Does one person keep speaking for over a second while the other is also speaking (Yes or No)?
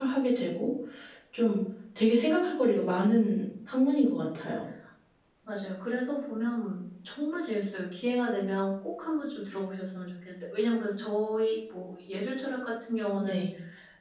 No